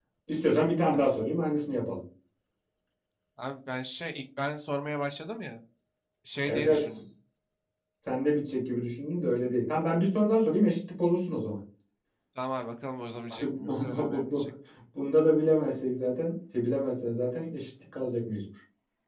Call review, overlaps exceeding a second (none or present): present